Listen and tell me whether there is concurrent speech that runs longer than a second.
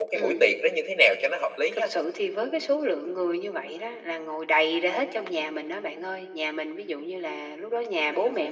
No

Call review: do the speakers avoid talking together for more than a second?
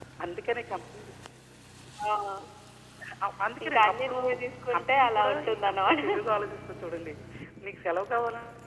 No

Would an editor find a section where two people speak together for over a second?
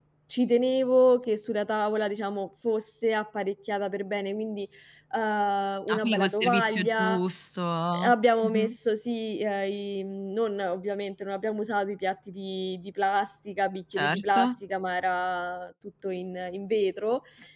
Yes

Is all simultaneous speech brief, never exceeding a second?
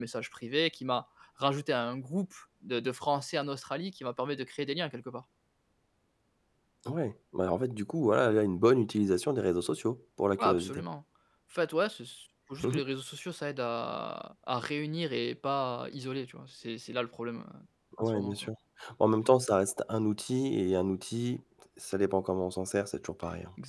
Yes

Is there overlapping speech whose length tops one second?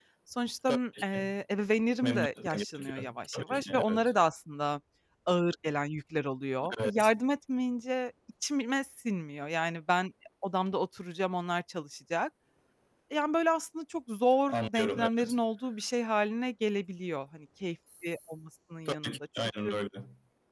Yes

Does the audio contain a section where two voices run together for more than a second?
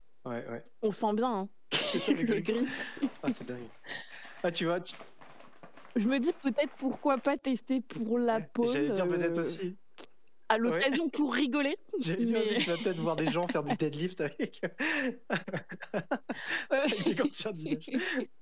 Yes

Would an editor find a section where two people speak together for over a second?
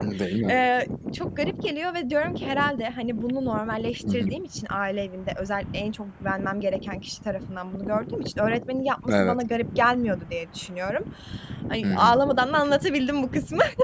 No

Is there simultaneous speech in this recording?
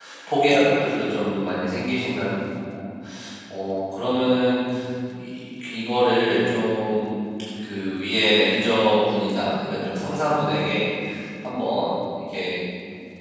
No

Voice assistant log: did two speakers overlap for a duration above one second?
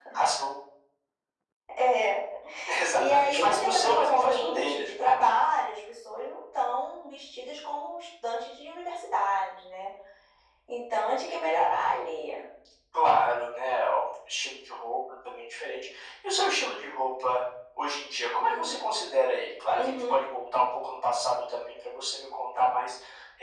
Yes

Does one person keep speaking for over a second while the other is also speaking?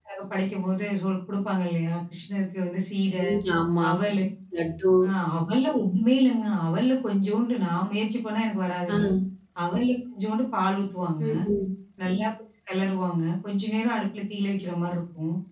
No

